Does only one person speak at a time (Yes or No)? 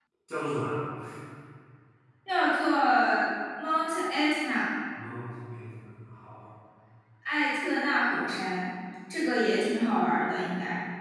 Yes